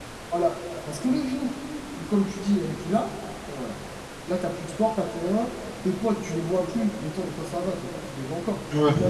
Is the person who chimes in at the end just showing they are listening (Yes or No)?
Yes